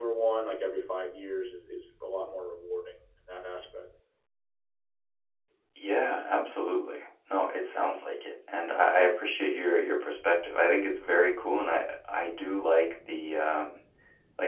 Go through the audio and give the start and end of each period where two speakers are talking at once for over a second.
none

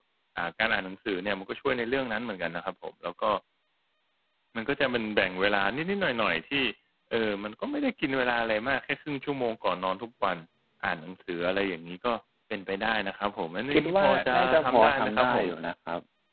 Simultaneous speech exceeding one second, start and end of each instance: 13.7-15.4

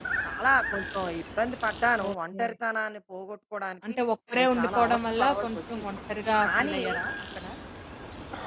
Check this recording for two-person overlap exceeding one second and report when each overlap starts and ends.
4.4-5.9

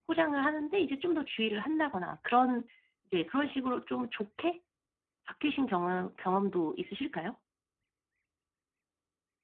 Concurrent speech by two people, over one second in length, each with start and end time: none

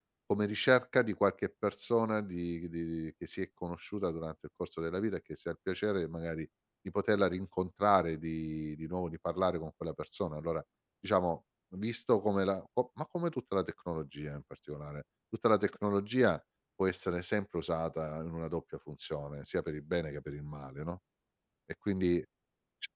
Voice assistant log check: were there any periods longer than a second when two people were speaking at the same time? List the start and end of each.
none

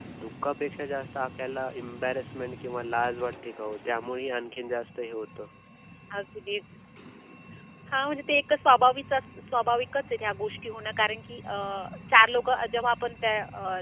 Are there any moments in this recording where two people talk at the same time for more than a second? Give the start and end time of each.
none

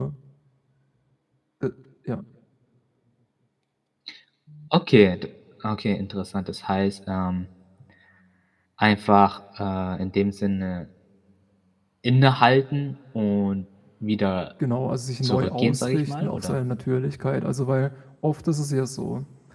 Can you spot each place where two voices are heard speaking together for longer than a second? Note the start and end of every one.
15.2-16.6

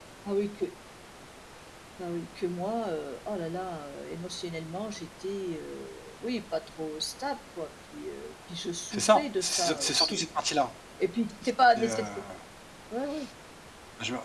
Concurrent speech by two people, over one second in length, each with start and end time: 8.9-10.2

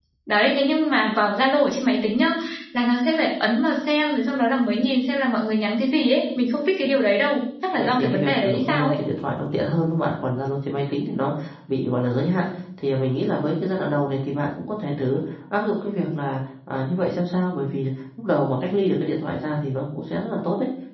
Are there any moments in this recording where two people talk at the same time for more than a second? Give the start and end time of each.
7.7-9.0

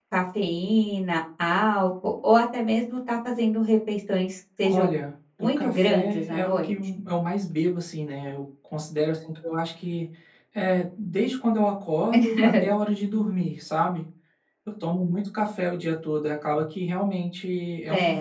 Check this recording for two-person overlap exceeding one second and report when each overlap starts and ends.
5.4-6.7

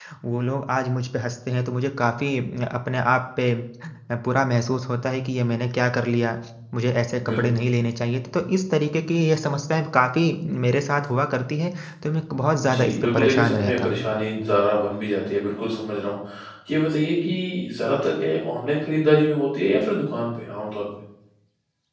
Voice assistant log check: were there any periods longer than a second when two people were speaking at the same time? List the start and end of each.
12.6-14.1

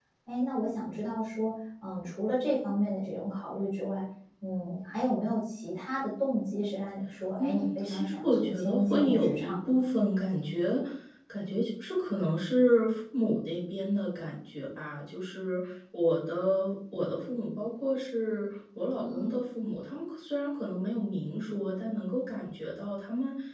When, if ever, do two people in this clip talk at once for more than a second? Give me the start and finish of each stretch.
7.4-9.8

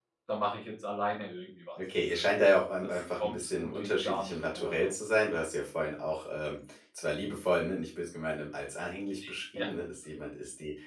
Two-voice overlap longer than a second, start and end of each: 2.8-4.9

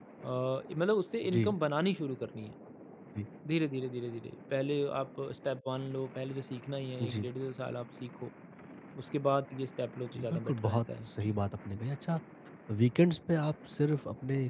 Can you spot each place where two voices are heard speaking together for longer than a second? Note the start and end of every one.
10.1-11.4

